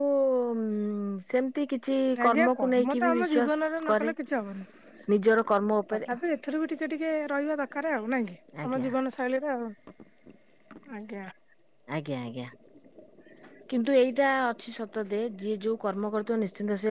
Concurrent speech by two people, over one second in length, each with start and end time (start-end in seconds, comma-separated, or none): 2.2-3.5